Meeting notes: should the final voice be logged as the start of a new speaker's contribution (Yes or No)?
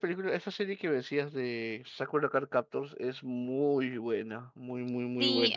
Yes